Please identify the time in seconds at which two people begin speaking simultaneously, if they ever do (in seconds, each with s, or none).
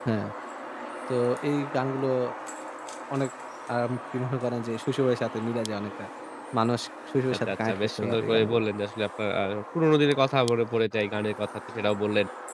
7.3 s